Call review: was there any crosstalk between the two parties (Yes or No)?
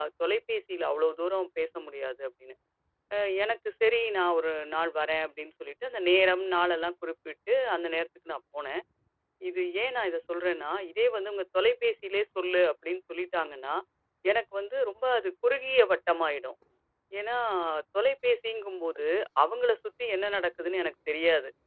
No